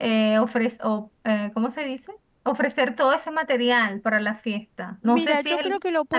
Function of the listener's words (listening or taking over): taking over